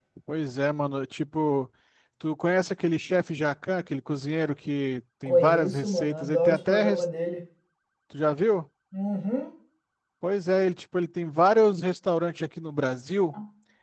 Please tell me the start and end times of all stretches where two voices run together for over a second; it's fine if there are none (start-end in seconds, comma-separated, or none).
5.2-7.0